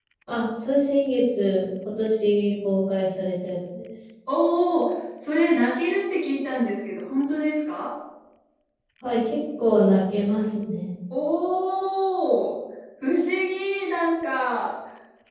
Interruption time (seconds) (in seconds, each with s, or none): none